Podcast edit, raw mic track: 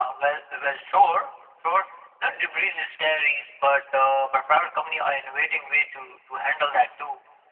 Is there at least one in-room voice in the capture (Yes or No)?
No